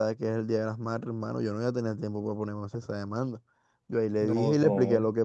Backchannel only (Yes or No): Yes